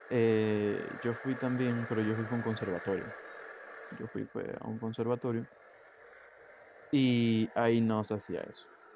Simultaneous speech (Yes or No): No